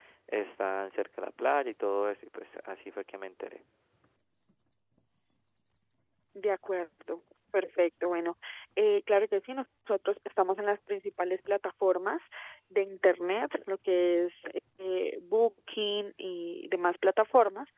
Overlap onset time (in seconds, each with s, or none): none